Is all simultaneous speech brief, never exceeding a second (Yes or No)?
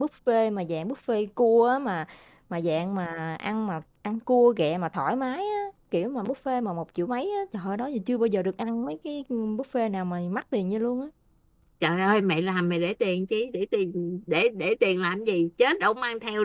Yes